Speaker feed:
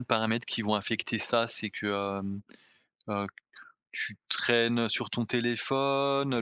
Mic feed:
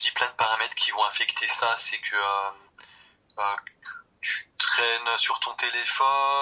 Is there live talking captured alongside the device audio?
No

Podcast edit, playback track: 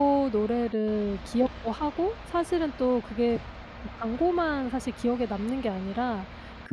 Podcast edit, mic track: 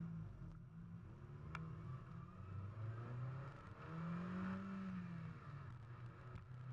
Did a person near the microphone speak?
No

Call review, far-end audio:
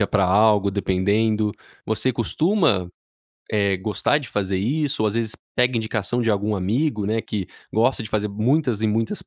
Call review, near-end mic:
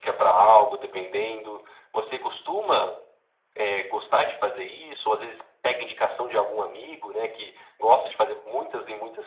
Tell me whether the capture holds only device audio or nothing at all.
Yes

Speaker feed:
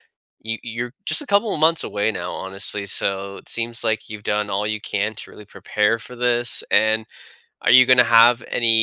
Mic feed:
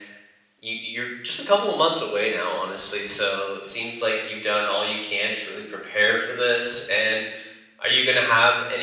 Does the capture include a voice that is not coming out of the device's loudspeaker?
No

